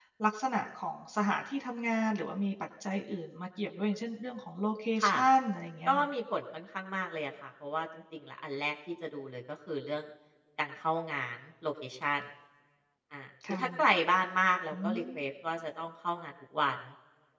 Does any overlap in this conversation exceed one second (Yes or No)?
No